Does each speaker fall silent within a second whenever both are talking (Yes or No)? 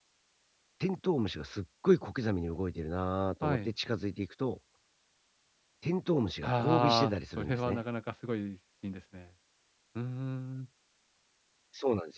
No